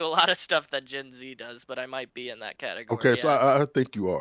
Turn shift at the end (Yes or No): Yes